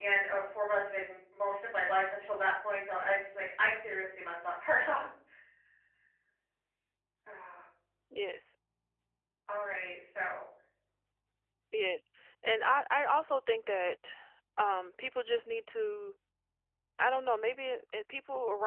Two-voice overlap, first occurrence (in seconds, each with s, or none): none